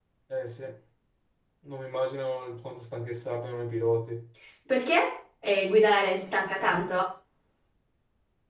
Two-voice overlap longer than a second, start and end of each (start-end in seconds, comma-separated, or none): none